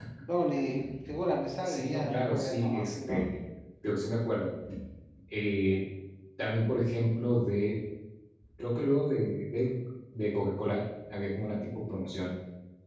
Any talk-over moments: Yes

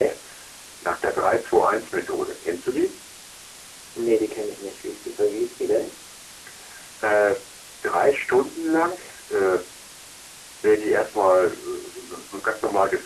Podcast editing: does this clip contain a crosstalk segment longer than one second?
No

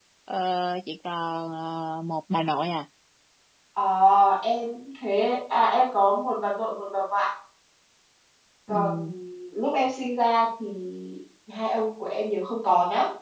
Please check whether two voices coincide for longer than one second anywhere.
No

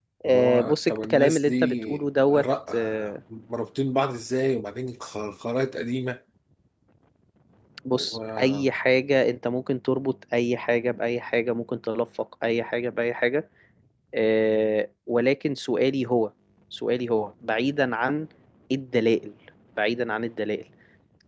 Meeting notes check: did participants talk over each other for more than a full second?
Yes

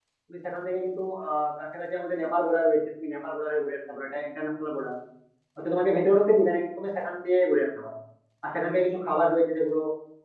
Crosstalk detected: No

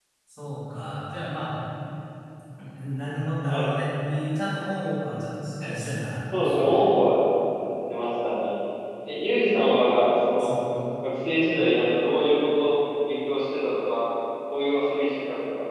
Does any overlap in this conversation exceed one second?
No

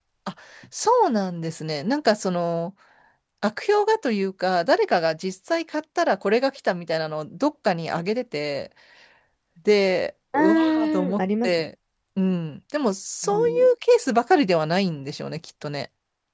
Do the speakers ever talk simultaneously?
Yes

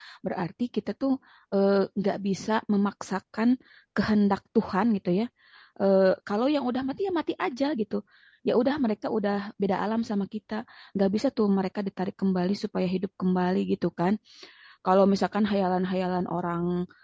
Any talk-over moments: No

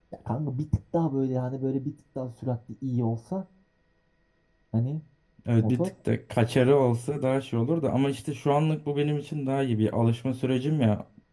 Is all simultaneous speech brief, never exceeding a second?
Yes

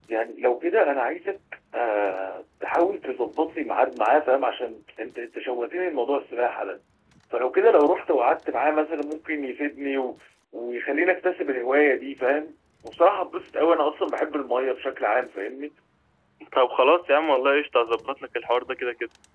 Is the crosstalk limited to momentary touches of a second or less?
Yes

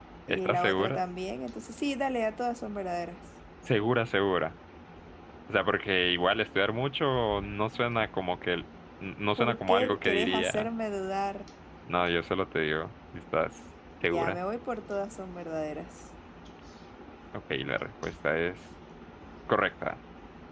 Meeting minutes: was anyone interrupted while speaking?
Yes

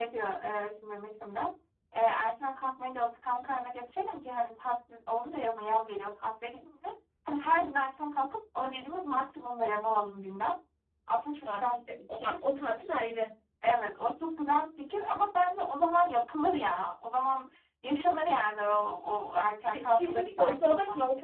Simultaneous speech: Yes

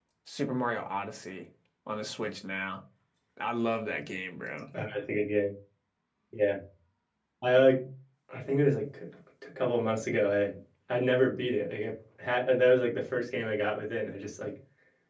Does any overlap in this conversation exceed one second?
No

